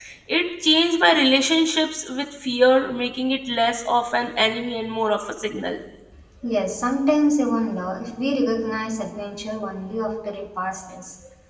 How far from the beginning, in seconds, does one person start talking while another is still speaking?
none

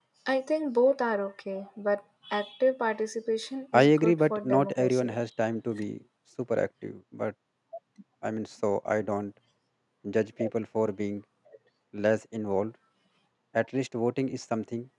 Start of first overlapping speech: 3.7 s

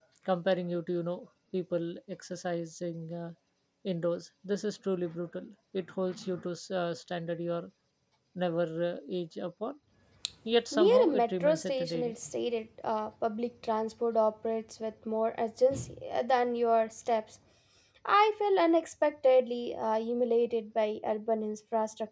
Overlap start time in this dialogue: 10.7 s

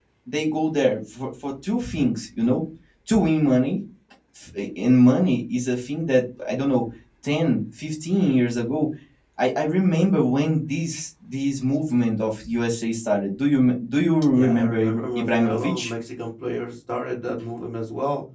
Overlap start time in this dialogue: 14.3 s

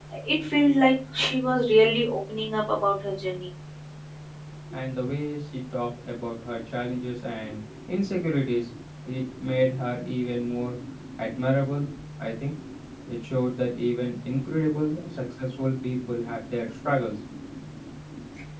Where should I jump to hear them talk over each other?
none

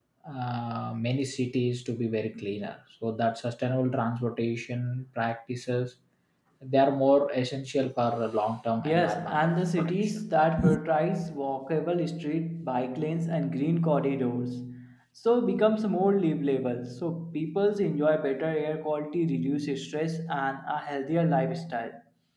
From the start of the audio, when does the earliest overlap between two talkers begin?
8.8 s

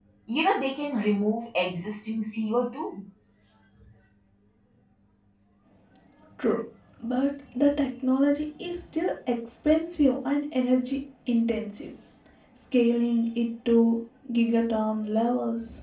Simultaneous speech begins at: none

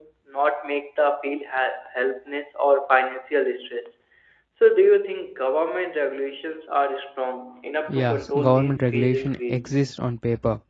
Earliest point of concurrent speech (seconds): 7.9 s

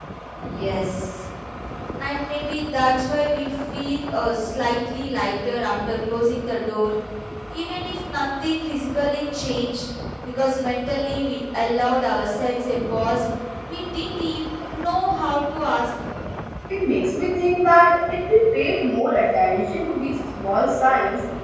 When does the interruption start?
none

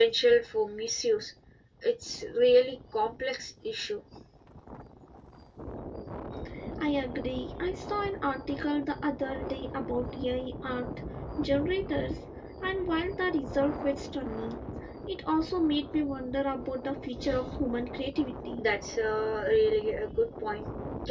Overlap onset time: none

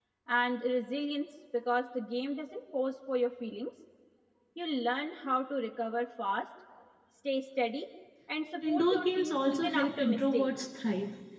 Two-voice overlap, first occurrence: 8.6 s

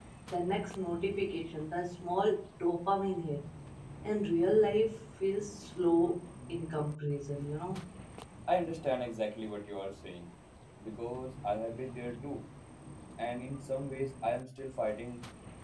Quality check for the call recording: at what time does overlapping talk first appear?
none

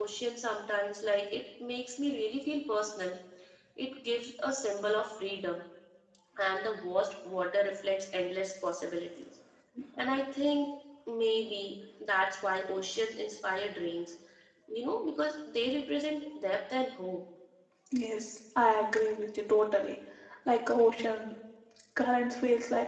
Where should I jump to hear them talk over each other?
none

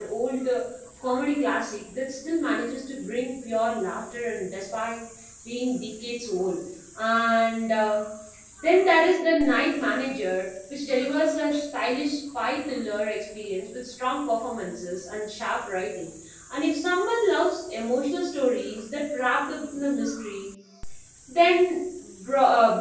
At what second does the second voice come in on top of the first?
none

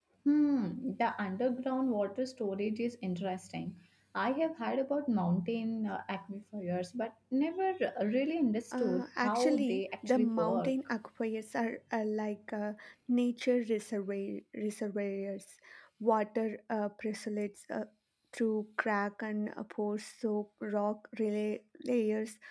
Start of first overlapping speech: 8.7 s

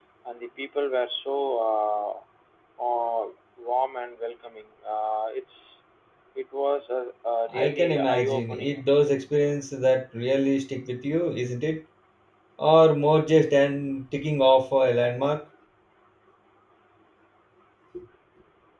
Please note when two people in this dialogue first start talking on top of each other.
7.5 s

